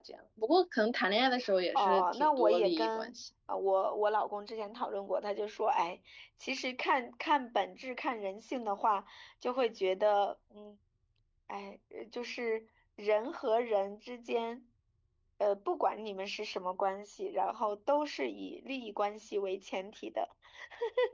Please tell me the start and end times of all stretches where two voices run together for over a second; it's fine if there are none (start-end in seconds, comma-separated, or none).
1.8-3.1